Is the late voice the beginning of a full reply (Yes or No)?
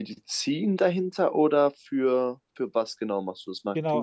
Yes